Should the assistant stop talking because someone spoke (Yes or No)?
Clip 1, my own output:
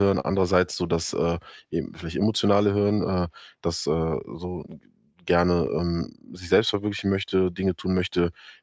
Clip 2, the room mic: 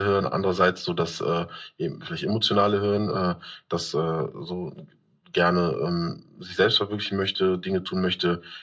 No